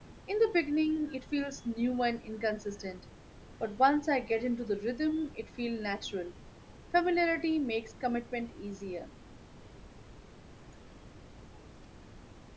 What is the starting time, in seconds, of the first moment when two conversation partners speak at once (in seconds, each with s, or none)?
none